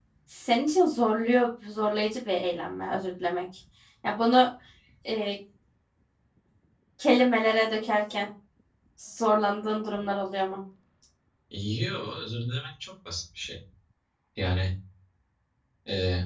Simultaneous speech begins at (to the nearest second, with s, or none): none